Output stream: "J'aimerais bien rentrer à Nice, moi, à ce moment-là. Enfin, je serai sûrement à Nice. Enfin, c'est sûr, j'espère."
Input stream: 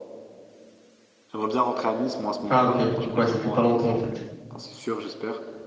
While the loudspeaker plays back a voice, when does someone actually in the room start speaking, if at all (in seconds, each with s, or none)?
2.5 s